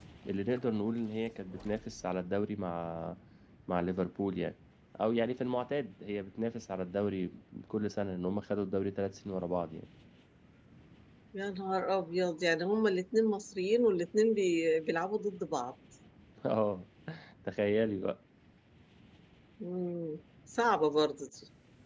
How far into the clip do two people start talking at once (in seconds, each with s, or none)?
none